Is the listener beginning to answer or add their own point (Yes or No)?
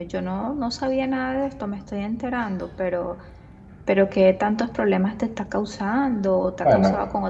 Yes